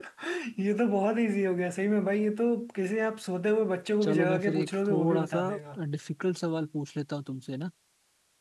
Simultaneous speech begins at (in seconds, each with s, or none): 4.0 s